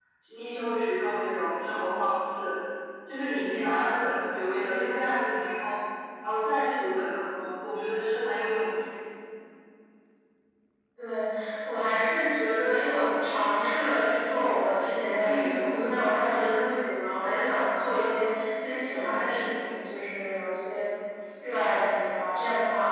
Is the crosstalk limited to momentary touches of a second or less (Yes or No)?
Yes